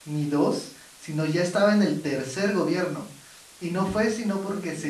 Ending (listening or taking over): listening